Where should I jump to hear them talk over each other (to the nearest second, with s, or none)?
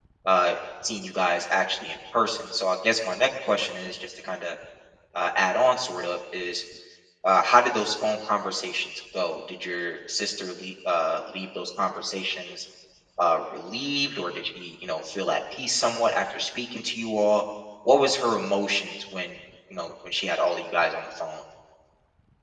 none